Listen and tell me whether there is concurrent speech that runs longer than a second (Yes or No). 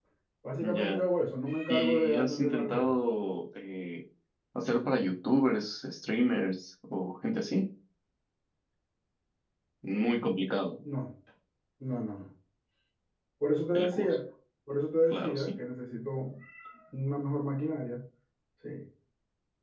Yes